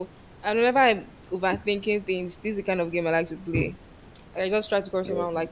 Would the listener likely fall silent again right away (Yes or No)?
Yes